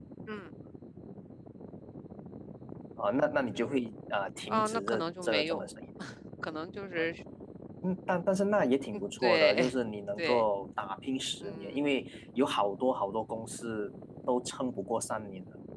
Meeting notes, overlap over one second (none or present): present